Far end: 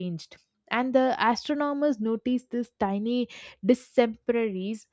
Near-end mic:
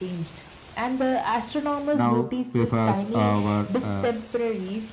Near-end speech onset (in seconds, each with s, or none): 1.9 s